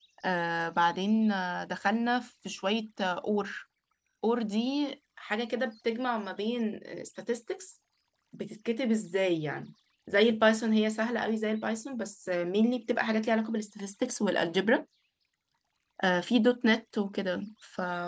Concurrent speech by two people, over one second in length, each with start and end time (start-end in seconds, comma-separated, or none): none